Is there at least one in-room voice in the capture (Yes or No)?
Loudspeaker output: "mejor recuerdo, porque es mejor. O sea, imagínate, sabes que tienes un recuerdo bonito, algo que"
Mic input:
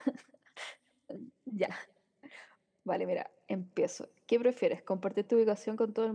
Yes